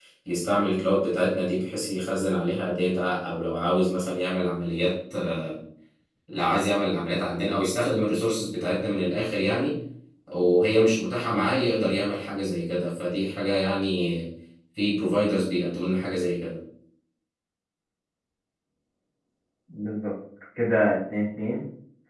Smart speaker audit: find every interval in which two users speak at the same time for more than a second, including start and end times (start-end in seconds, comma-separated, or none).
none